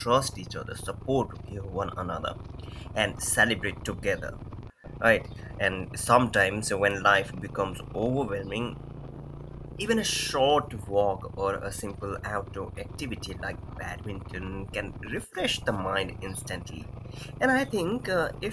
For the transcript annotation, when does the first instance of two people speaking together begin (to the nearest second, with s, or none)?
none